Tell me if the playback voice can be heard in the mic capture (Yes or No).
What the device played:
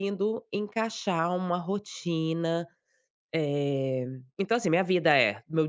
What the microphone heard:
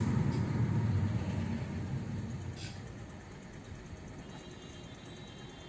No